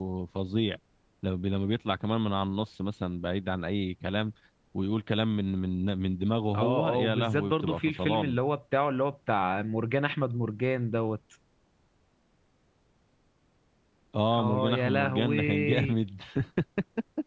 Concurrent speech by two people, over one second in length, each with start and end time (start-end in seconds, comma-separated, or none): 6.5-8.4, 14.4-16.0